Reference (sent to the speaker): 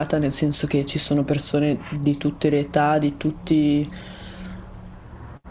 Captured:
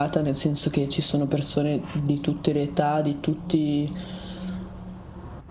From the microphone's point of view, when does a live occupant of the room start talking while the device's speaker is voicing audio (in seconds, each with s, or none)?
none